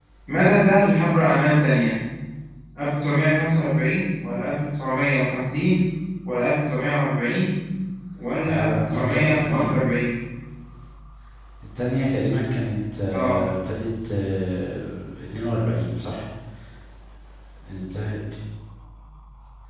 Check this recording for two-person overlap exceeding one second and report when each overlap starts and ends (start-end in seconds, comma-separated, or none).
8.5-9.7